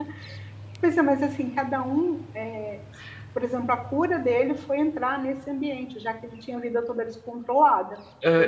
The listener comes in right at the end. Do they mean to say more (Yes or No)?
Yes